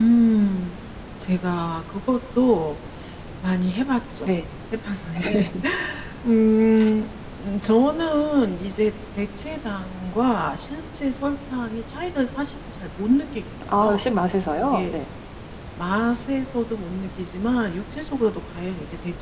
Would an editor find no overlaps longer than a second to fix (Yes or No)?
Yes